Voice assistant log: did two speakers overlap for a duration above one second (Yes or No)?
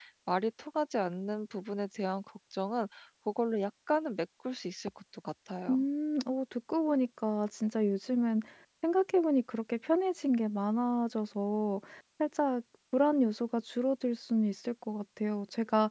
No